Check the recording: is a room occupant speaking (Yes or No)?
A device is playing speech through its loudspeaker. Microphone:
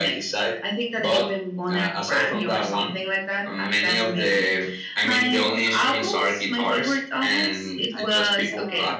Yes